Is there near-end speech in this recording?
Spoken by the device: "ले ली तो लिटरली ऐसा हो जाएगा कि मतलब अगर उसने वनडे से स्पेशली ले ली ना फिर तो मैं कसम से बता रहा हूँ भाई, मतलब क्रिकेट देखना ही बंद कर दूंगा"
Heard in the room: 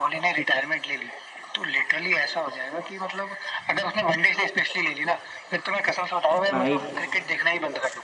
Yes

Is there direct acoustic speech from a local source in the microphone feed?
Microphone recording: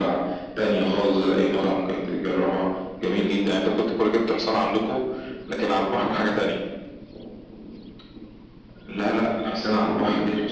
No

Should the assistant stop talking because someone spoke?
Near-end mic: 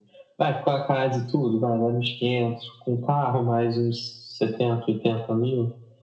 No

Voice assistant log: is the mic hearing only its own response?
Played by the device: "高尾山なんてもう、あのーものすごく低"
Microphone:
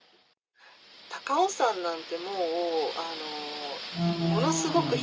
No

